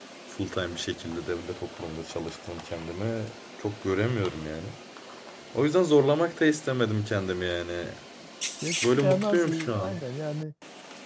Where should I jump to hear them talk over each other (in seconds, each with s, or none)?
8.8 s